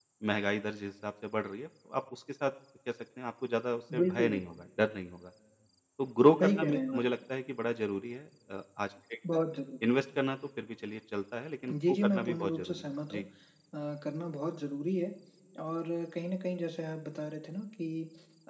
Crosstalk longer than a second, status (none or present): present